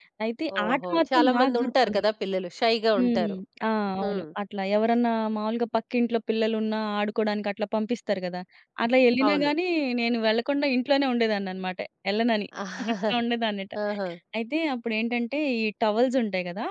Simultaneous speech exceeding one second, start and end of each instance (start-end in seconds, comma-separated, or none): 0.6-2.0